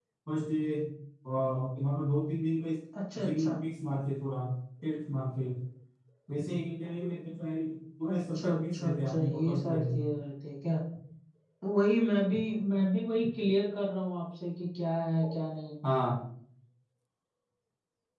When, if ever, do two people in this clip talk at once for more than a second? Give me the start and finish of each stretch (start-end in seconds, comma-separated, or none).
8.1-10.0